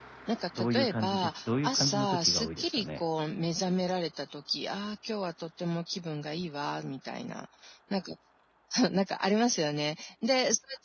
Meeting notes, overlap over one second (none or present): present